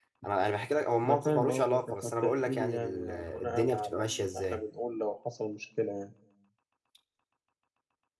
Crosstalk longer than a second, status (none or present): present